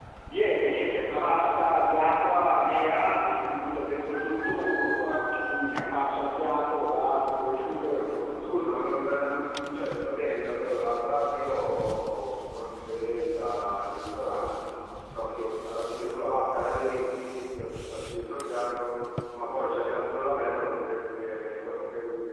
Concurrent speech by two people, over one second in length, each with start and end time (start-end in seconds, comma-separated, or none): none